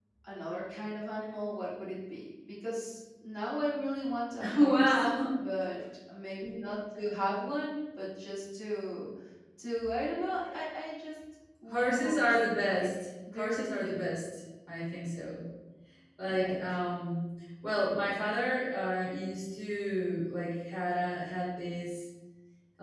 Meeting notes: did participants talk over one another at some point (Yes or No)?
Yes